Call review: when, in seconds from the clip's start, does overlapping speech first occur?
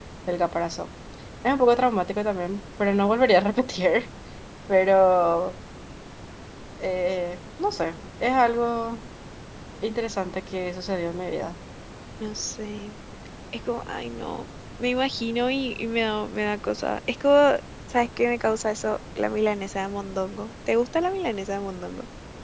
none

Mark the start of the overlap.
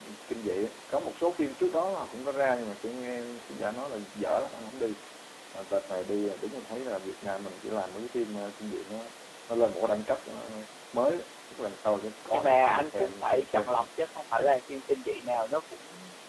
12.3 s

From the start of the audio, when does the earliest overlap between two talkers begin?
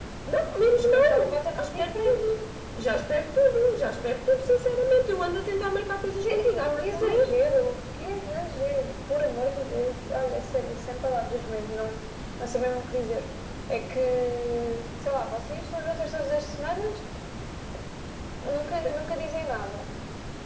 0.8 s

